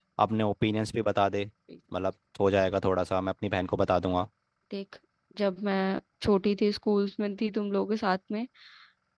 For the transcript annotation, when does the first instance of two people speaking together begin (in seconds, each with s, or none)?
none